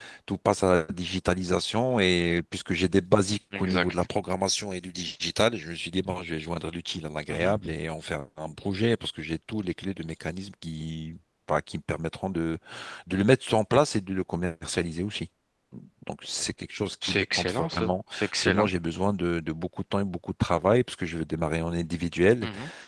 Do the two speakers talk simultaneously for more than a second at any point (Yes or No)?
Yes